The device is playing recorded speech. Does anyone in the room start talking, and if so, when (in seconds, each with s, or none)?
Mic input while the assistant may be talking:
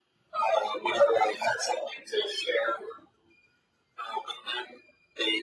none